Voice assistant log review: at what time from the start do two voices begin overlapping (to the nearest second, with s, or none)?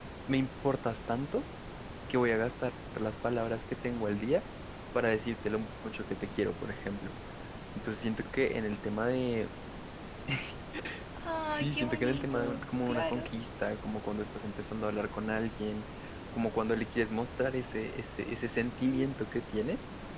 11 s